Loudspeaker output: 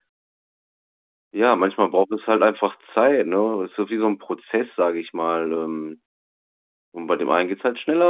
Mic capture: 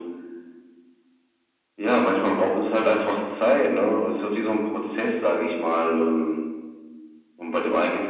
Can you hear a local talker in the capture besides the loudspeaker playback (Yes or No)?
No